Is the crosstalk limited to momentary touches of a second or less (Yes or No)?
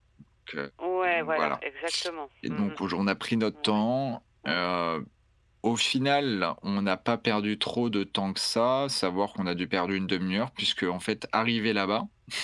Yes